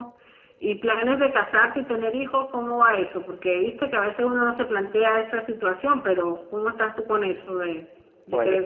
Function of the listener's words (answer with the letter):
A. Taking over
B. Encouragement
A